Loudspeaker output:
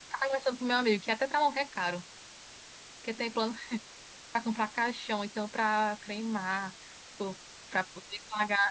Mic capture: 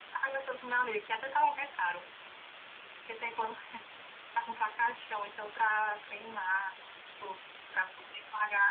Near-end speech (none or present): none